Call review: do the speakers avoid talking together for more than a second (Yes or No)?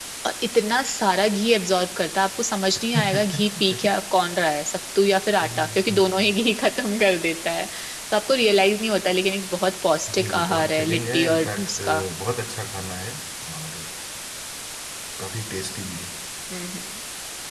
No